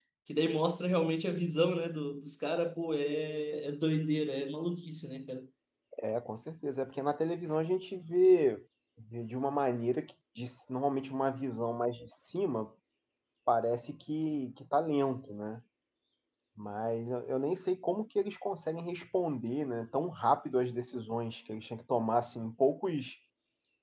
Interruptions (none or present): none